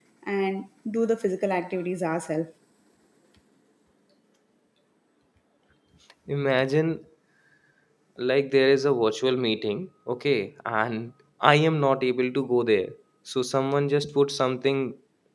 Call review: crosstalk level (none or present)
none